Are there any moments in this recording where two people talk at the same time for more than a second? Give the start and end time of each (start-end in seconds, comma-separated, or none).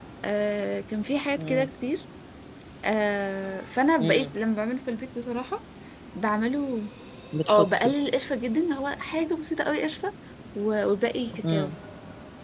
none